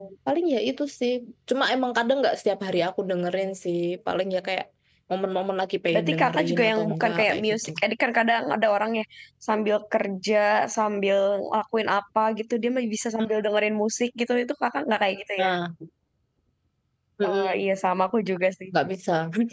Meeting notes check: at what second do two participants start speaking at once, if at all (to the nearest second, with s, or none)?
6 s